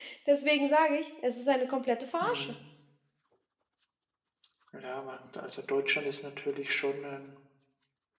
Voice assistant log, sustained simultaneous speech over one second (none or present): none